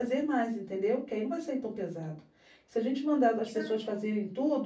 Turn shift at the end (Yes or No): No